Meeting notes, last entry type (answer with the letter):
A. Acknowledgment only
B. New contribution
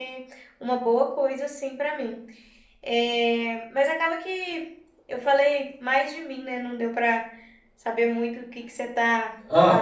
B